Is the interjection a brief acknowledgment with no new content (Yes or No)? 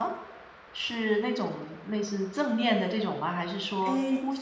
No